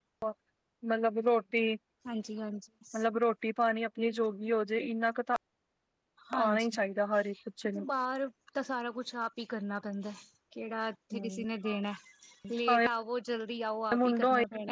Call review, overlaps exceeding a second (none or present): none